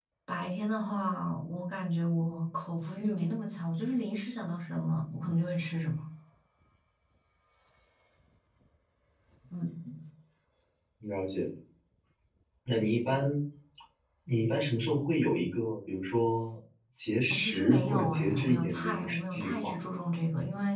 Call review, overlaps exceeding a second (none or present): present